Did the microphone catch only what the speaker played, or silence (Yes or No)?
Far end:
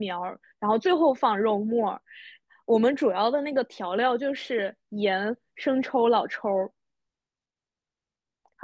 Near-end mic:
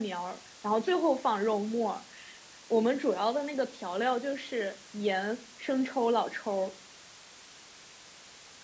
Yes